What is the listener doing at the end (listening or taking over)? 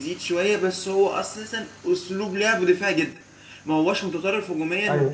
listening